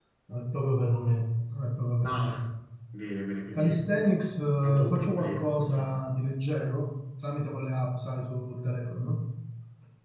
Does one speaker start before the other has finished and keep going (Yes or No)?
Yes